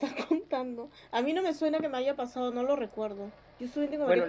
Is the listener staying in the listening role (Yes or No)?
No